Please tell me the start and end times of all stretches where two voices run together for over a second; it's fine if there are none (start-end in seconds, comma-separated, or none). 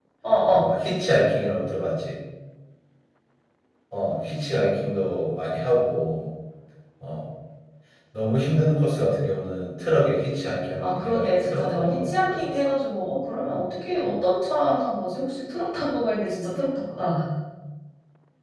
10.8-12.5